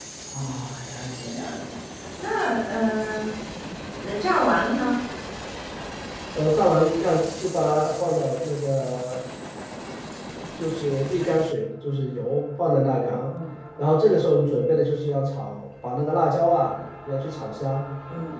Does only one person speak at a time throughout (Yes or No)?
Yes